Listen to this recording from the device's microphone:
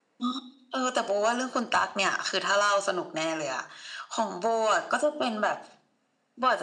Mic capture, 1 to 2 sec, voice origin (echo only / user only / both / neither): echo only